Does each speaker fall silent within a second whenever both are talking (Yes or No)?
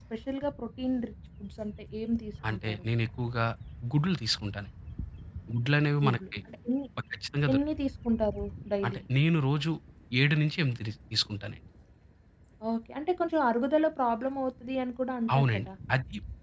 Yes